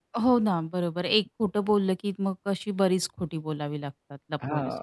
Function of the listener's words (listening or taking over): taking over